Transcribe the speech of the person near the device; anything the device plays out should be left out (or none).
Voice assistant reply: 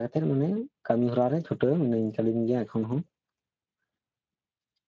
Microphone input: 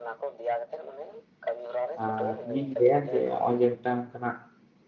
ᱟᱨ ᱤᱧᱤᱧ ᱞᱟᱹᱭᱟ ᱡᱮ ᱱᱚᱜᱼᱚᱭ ᱡᱮ ᱢᱤᱫᱴᱟᱱ ᱚᱱᱠᱟᱱᱟᱜ